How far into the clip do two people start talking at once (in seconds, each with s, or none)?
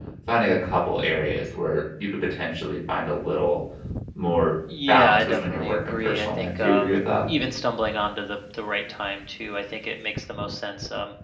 4.9 s